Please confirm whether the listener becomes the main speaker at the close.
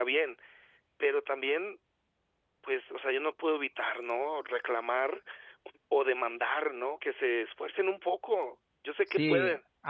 Yes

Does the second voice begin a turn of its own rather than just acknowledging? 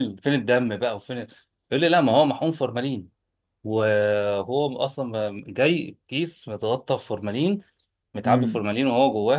No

